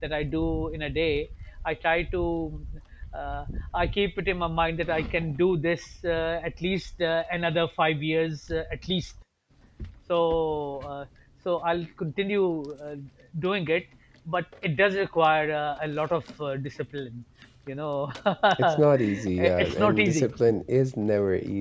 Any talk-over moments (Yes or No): Yes